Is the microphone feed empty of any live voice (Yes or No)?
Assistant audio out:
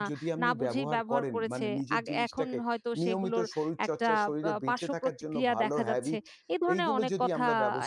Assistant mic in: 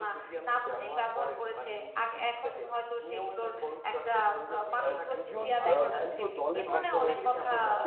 No